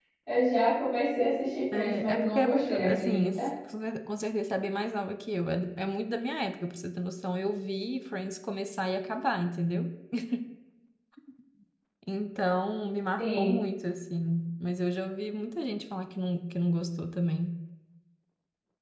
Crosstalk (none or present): present